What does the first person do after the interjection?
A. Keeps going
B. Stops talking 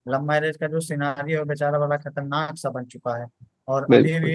A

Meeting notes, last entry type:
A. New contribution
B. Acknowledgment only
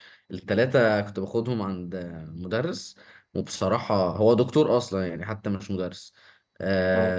B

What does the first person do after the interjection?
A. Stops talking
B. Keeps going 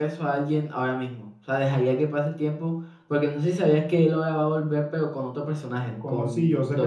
A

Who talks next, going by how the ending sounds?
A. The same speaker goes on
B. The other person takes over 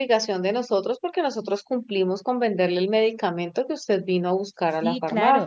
B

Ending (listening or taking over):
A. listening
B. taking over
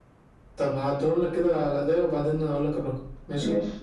A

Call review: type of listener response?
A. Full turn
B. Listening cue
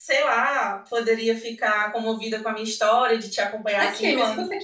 A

